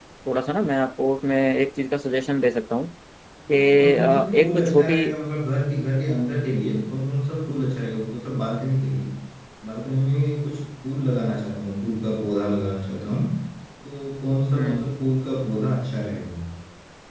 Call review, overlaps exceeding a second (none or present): present